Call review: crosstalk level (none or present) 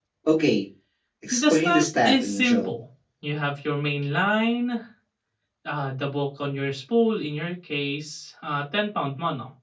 present